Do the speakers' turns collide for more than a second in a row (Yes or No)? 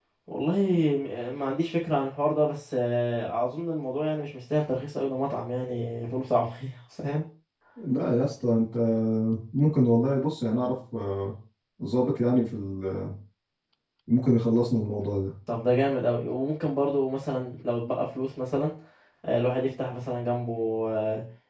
No